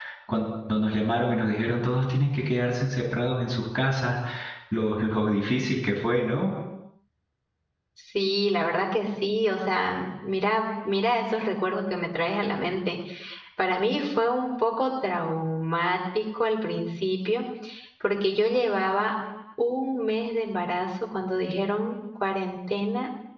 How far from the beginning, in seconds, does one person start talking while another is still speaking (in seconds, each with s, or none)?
none